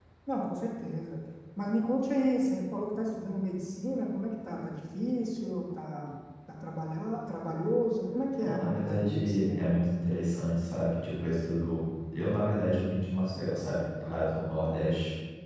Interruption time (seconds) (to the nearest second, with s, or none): 8 s